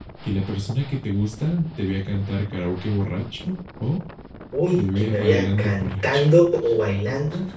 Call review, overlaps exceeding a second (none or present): present